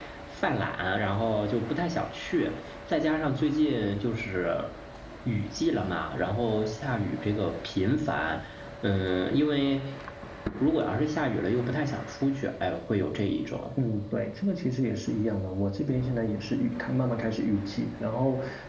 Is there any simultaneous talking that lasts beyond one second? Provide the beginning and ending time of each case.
none

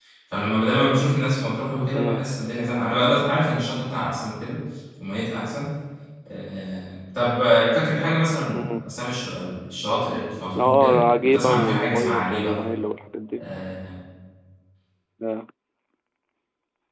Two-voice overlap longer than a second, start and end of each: 10.6-12.6

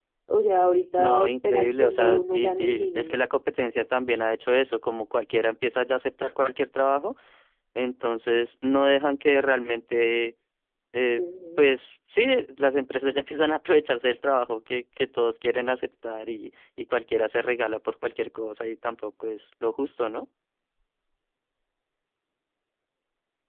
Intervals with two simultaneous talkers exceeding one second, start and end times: 1.0-3.2

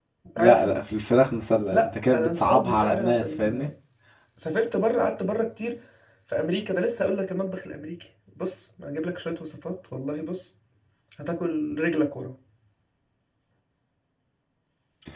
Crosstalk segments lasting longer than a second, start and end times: 1.7-3.6

